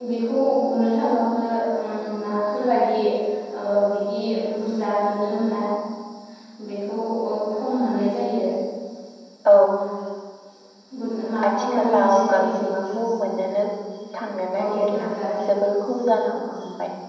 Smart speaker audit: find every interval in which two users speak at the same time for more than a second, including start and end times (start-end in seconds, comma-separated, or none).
11.5-12.9